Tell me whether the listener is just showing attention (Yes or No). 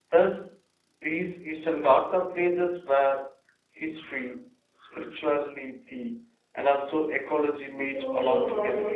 No